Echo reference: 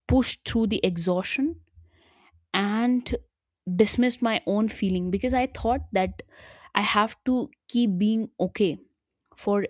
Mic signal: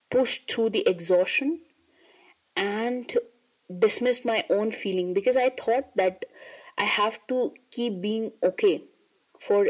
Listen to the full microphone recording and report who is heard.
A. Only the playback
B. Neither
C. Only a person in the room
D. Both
A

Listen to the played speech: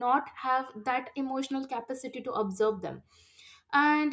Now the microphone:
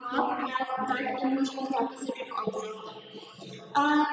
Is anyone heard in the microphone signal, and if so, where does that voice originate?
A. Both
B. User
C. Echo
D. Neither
C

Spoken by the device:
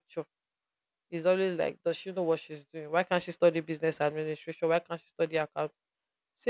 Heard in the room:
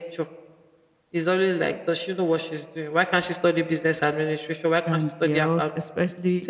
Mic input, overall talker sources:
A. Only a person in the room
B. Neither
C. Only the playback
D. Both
D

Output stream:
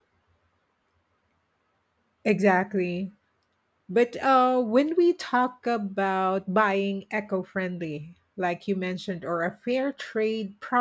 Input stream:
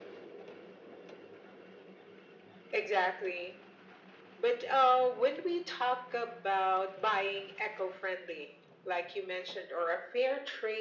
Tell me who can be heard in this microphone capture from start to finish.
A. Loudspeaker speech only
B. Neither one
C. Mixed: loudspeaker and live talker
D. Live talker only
A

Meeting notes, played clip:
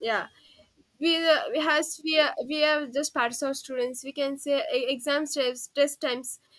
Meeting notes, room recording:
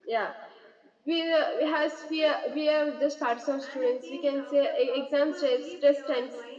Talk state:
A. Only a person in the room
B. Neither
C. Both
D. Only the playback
C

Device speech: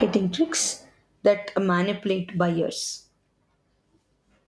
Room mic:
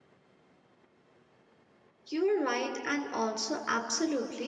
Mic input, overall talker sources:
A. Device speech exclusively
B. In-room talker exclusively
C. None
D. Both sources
B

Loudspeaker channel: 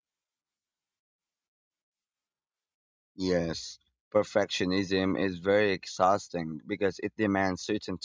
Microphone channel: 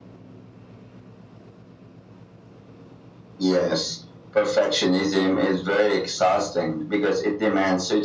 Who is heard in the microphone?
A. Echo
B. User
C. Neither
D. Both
A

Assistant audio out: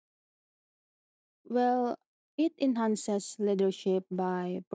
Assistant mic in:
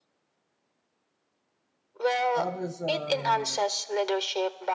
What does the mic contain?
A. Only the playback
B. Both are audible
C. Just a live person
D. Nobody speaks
B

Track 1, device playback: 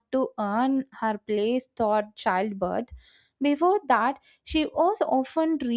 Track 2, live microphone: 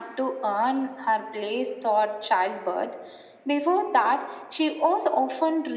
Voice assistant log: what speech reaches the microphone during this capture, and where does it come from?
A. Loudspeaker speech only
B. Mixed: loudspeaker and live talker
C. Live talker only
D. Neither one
A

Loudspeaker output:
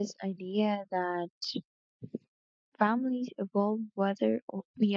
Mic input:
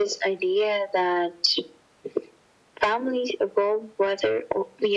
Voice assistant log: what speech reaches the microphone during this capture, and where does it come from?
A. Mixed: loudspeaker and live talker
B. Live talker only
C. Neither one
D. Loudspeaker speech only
D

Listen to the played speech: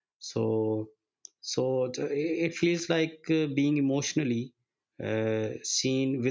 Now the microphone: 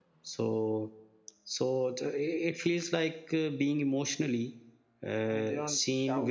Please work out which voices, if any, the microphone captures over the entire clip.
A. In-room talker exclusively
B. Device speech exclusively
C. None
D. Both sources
D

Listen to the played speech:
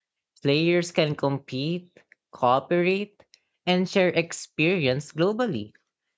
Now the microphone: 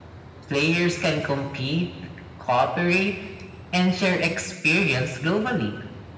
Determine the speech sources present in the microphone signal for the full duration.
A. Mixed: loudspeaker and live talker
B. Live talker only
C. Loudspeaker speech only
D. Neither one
C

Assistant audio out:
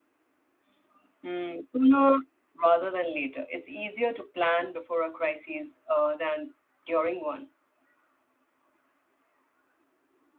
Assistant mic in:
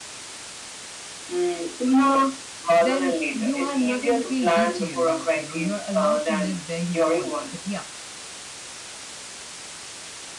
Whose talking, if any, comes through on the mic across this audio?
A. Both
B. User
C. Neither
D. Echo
A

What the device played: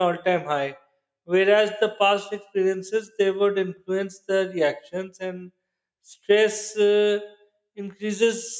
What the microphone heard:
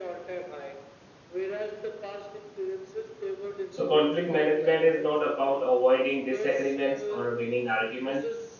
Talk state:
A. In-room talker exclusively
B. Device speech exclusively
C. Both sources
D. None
C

